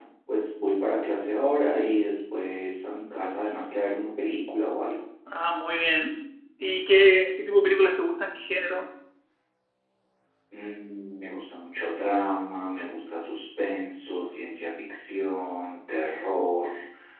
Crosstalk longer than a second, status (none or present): none